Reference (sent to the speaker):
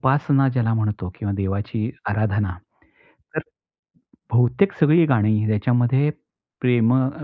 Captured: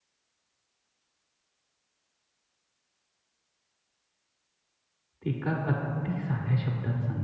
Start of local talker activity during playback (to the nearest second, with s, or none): 5 s